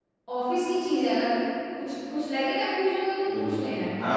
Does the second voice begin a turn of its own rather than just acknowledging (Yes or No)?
Yes